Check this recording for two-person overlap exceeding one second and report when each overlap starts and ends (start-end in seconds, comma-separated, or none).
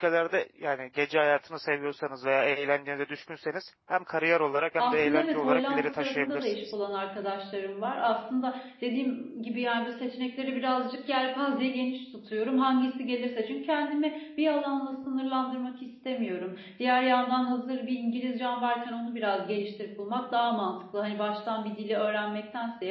4.8-6.5